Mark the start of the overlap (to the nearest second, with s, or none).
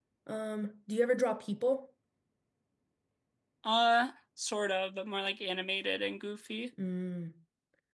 none